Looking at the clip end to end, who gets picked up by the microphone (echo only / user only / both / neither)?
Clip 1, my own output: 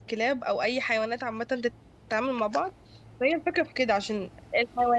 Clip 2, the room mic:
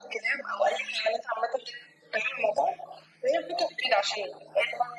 echo only